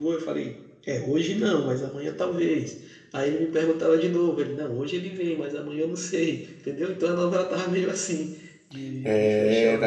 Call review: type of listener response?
taking over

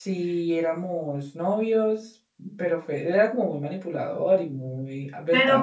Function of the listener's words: taking over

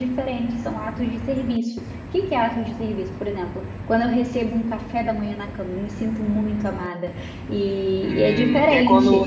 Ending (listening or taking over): taking over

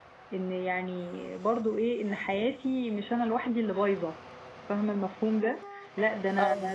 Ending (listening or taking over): listening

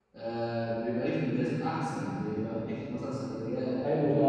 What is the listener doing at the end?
taking over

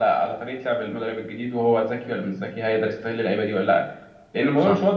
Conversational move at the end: listening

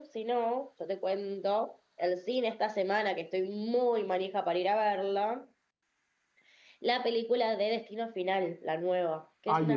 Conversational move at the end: taking over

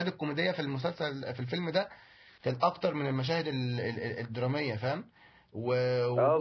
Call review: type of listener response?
taking over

